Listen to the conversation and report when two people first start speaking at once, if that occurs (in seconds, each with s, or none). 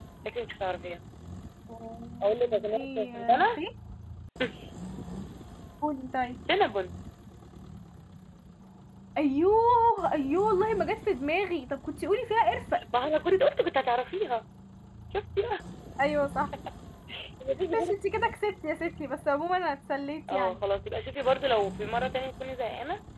2.2 s